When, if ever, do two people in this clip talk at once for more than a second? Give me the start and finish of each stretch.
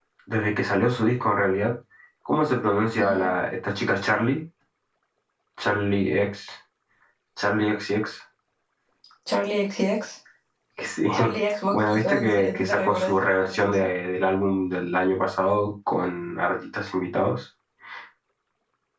11.7-13.9

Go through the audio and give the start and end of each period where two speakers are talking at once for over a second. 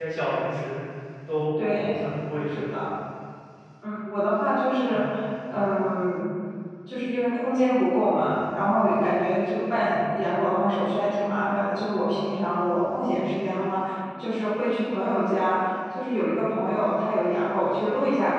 none

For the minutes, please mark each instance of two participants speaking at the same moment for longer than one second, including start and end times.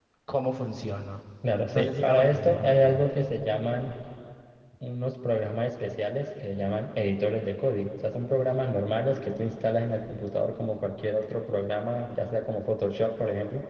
1.7-3.0

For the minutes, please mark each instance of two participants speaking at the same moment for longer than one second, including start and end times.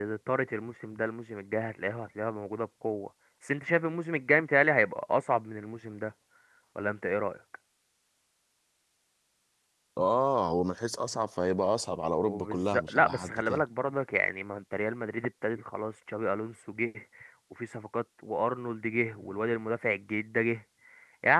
12.2-13.6

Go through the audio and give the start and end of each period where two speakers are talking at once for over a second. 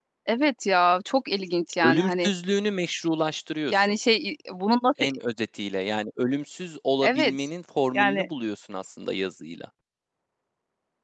none

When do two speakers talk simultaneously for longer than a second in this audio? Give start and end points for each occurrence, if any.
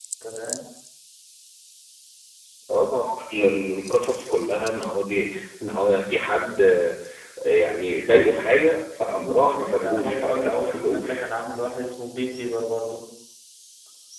9.1-11.2

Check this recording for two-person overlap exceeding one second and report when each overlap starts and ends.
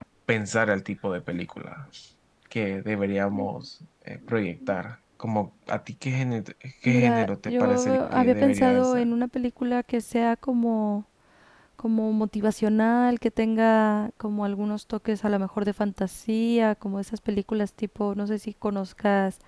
6.8-9.1

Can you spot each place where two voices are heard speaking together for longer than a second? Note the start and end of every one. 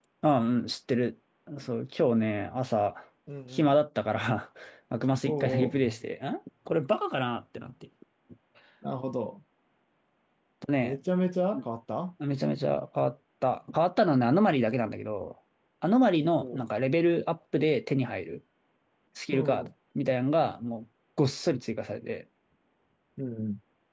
none

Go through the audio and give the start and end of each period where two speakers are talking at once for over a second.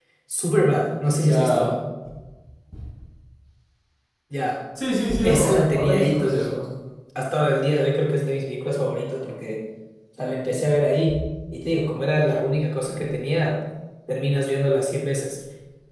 5.2-6.5

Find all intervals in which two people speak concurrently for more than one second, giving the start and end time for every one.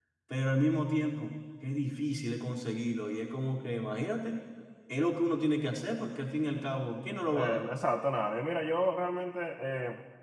none

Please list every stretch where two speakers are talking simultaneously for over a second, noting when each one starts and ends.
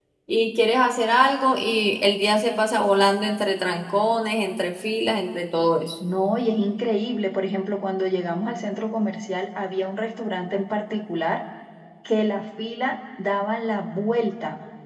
none

